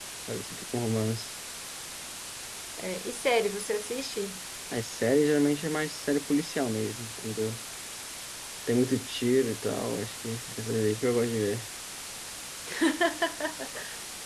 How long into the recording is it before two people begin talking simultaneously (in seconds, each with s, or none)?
none